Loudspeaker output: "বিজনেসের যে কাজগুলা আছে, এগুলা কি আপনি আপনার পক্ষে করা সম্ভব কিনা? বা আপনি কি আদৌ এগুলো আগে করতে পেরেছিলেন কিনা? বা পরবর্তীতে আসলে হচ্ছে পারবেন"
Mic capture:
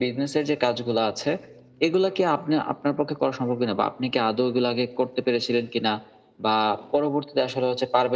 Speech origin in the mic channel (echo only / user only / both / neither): echo only